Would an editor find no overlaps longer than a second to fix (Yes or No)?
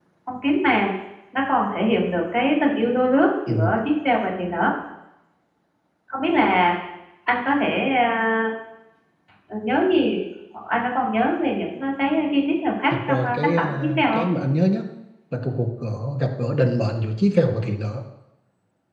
No